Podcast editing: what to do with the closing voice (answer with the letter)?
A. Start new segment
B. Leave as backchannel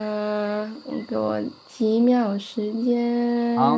A